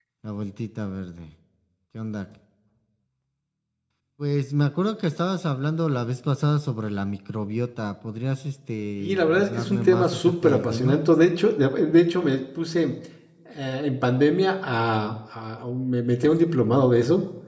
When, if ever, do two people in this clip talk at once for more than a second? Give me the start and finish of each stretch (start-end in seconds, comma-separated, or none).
9.0-11.0